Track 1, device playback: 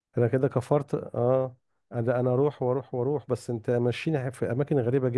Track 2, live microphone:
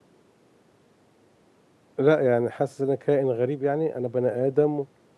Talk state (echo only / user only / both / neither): user only